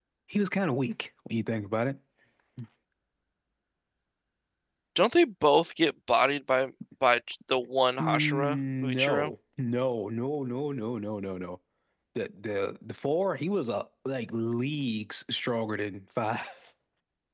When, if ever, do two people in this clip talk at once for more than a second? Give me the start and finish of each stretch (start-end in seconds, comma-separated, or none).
8.0-9.3